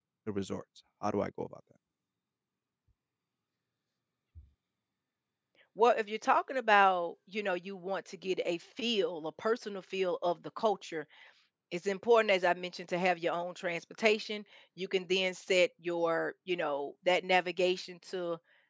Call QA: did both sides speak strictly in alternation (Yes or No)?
Yes